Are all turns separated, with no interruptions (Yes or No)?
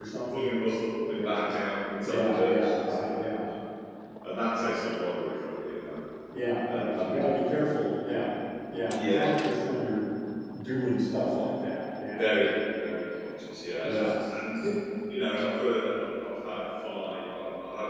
No